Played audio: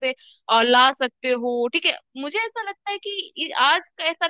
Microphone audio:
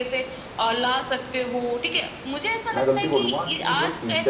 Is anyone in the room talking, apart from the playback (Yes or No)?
Yes